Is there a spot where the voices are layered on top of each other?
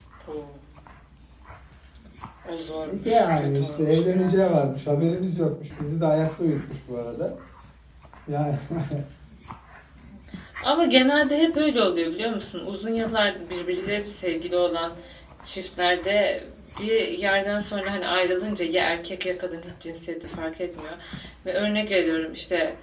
Yes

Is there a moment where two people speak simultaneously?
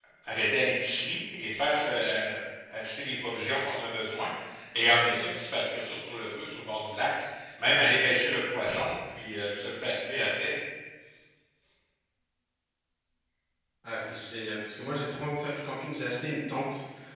No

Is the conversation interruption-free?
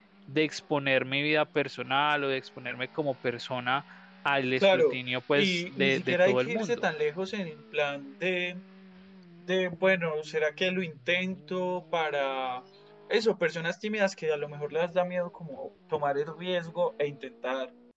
No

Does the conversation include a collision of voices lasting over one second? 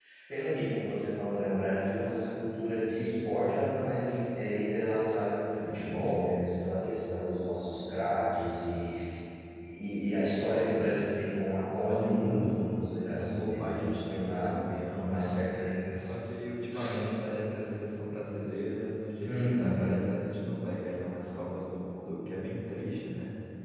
Yes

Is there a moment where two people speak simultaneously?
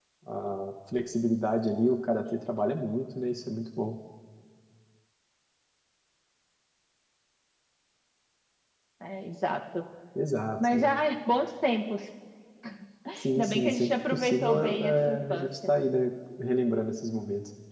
Yes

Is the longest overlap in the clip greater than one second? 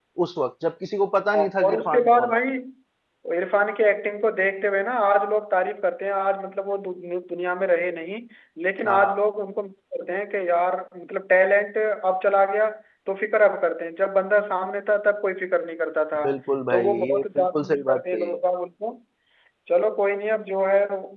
Yes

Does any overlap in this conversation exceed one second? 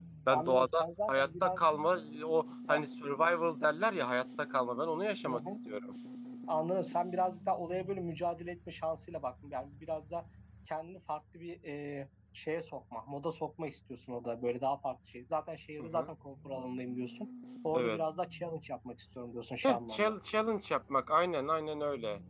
Yes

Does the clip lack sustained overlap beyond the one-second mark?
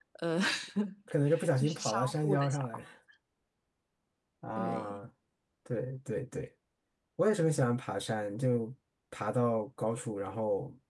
No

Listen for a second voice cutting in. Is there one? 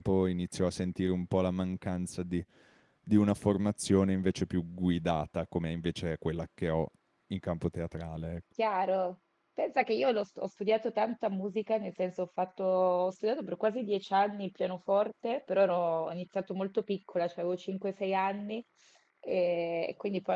No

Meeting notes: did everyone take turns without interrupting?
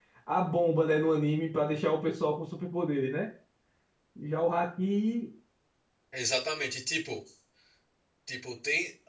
Yes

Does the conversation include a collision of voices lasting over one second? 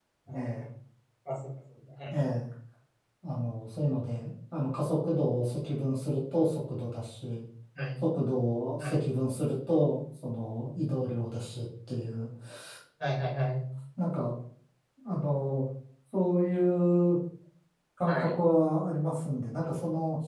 No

